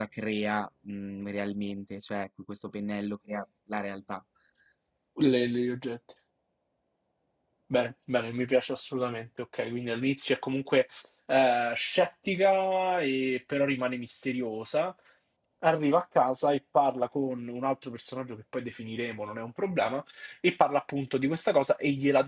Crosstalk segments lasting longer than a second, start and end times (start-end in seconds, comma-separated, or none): none